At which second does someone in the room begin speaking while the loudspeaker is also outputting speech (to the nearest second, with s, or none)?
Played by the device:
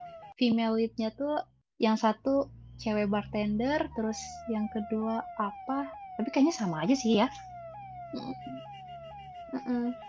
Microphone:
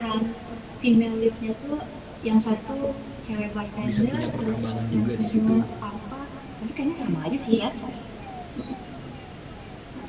4 s